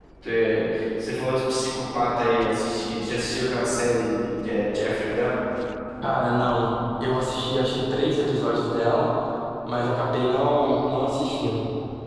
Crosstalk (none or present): none